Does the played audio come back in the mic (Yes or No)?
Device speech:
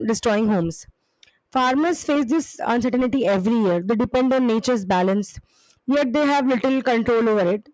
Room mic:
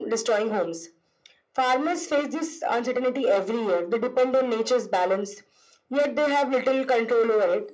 Yes